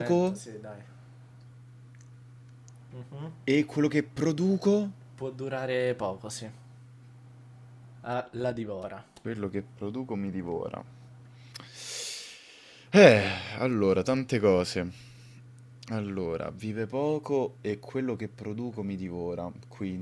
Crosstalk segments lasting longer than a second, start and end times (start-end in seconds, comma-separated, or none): none